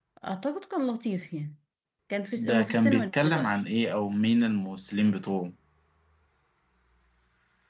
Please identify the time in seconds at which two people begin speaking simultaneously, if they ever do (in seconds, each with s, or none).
2.4 s